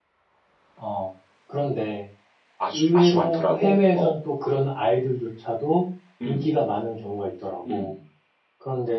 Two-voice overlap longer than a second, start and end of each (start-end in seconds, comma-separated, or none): 2.7-4.2